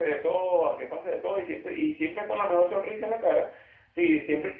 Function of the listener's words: listening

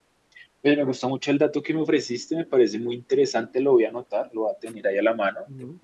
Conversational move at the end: listening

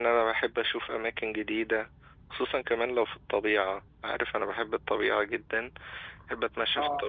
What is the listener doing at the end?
listening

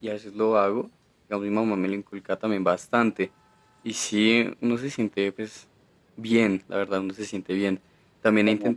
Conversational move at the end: listening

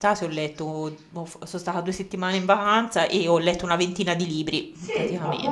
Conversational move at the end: taking over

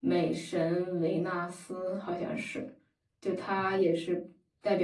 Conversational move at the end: listening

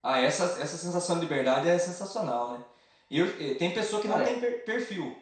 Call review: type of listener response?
listening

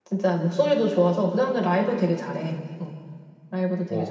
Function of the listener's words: taking over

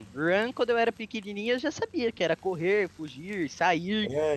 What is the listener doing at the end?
listening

